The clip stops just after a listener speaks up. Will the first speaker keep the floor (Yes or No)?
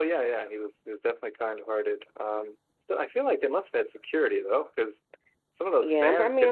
No